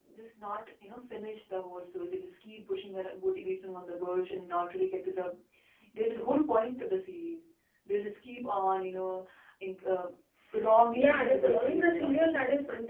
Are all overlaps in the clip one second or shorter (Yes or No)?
No